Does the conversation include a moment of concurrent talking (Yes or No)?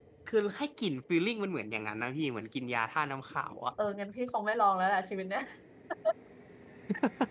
No